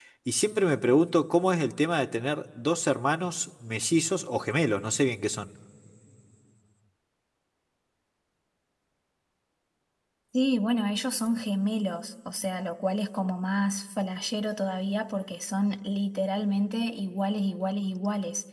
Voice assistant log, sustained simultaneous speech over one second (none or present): none